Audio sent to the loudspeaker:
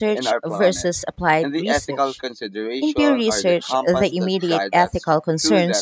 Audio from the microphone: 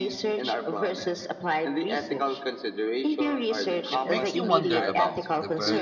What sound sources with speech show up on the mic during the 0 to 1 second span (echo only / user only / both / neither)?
echo only